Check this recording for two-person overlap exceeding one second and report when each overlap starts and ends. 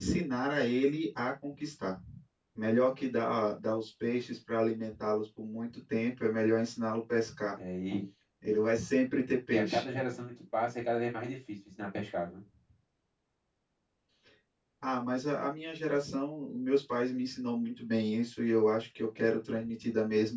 none

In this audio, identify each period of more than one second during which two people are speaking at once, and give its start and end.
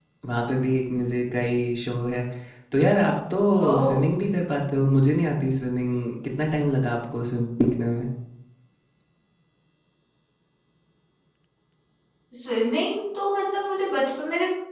none

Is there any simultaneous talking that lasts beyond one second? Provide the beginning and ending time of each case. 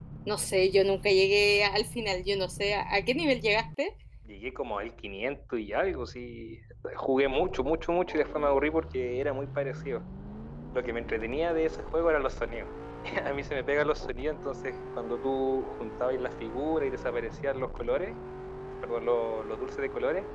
none

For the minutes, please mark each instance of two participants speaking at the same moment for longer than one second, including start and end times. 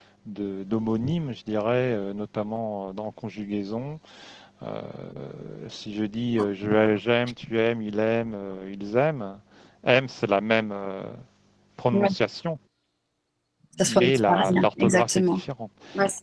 13.8-15.4

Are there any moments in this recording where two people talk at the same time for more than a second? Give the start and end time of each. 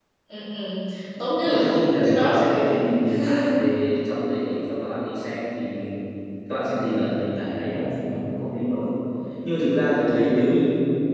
1.4-2.8

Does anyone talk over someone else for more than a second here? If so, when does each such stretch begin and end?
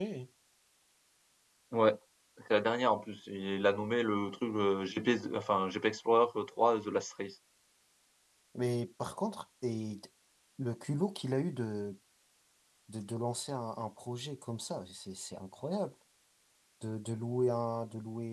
none

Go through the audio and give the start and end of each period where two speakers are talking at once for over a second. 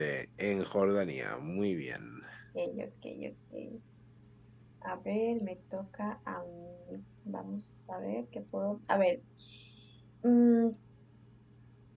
none

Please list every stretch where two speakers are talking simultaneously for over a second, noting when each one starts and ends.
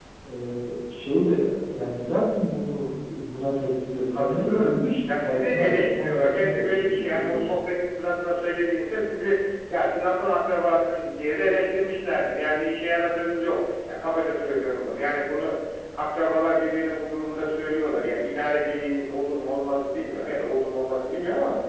4.1-7.5

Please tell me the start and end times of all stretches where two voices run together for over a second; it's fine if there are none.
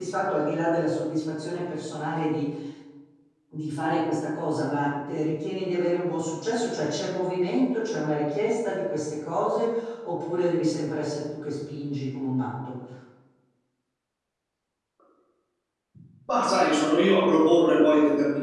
none

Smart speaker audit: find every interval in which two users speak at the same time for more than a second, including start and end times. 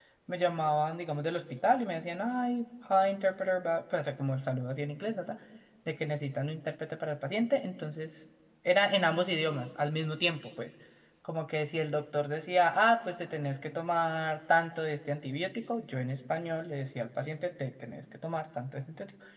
none

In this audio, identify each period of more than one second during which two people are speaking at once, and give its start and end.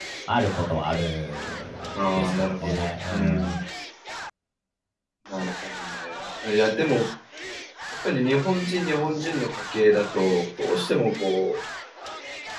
1.9-3.6

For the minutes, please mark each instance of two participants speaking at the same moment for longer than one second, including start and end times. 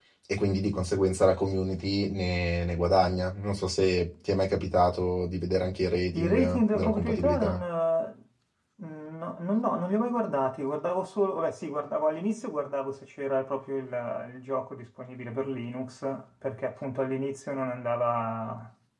6.1-7.6

